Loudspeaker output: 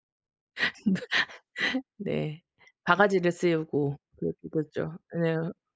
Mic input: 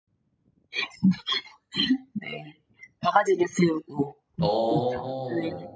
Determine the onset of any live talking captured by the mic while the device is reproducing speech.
4.4 s

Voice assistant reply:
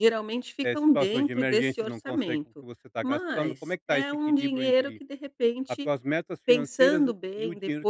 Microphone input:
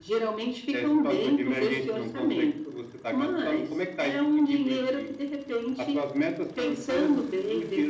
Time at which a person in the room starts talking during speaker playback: none

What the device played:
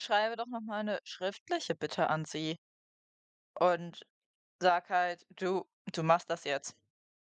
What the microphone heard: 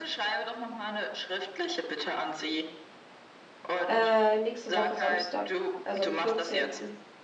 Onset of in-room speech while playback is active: 3.9 s

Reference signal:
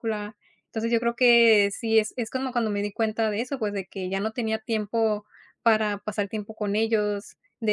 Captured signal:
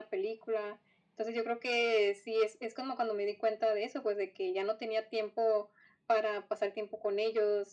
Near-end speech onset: none

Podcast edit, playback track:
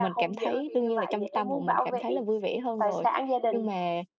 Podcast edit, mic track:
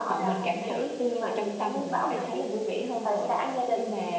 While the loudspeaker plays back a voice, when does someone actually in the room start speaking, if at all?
1.8 s

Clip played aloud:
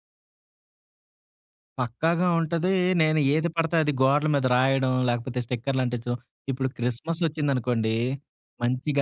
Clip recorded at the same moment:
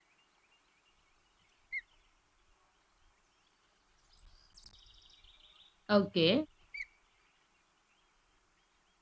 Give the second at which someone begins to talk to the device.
6.0 s

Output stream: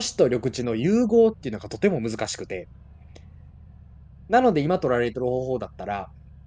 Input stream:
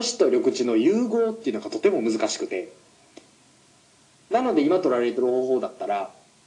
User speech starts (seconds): none

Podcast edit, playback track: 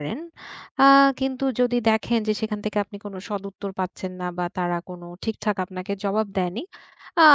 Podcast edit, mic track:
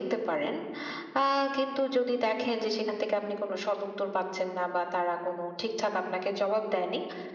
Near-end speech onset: none

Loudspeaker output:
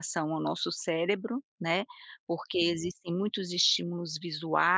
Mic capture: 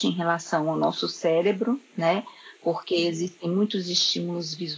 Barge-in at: none

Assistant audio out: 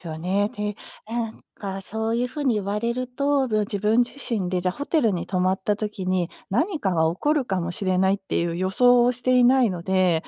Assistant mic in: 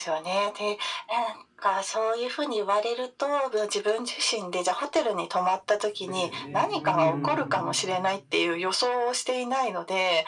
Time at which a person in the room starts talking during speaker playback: 5.9 s

